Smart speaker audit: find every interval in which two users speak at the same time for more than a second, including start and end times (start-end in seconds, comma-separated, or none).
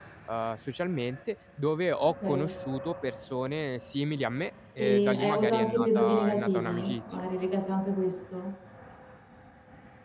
4.9-7.2